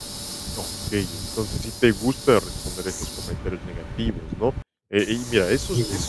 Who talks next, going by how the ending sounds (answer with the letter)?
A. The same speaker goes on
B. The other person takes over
A